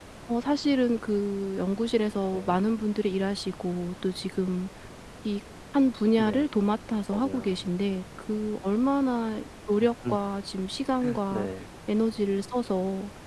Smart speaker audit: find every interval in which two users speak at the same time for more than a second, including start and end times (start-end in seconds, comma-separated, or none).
none